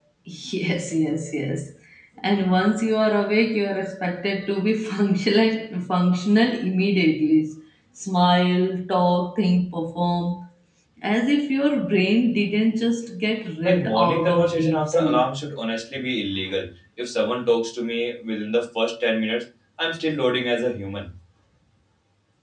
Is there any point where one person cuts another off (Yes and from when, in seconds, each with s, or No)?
Yes, from 13.6 s